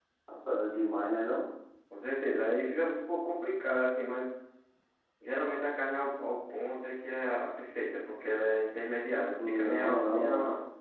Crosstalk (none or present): present